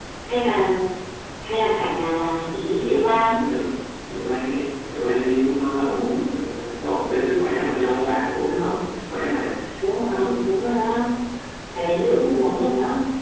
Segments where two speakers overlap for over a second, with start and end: none

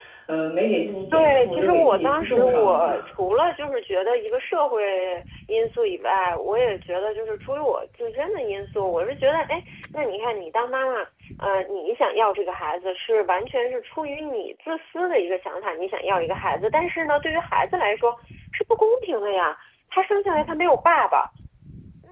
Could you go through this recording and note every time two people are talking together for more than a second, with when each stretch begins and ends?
1.1-2.9

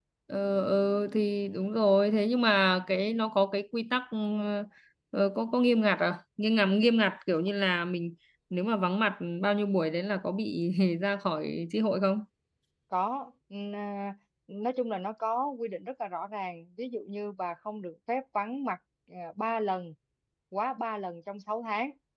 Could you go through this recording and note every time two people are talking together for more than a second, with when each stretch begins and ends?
none

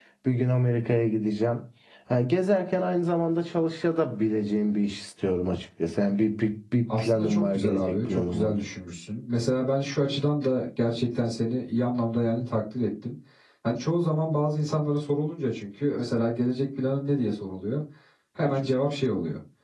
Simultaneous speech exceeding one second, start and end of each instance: 7.0-8.6

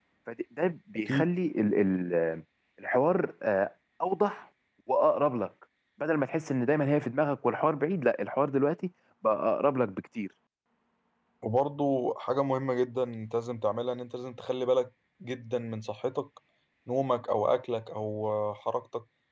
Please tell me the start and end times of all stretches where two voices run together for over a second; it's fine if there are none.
none

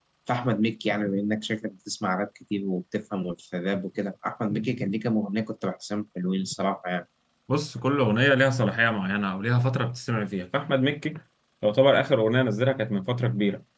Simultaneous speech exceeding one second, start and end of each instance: none

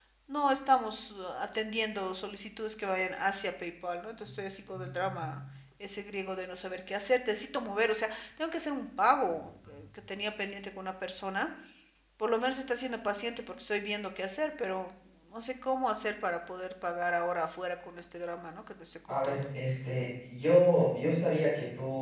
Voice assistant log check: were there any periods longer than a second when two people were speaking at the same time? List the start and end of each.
none

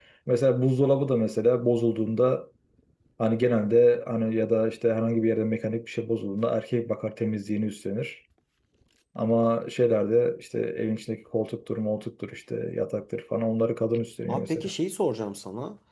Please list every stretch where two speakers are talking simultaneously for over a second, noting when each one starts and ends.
none

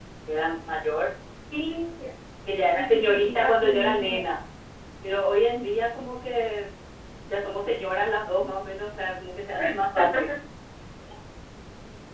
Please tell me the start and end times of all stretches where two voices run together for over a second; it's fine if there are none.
2.7-4.2

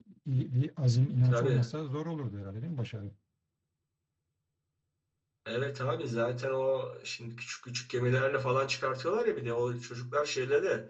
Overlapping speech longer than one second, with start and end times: none

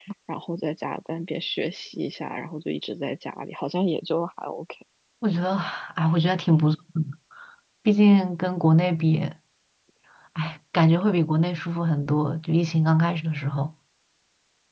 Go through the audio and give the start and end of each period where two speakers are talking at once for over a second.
none

